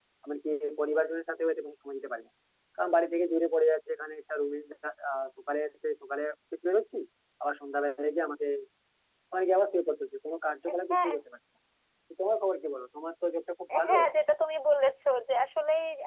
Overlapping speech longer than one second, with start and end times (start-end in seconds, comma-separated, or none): none